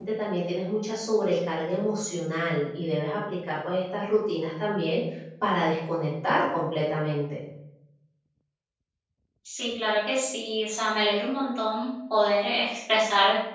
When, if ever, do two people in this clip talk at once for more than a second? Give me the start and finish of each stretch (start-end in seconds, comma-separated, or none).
none